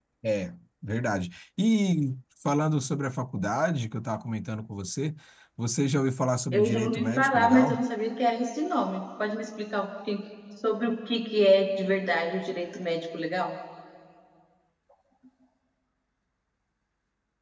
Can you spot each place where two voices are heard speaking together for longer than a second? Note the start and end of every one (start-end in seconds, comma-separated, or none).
6.5-7.8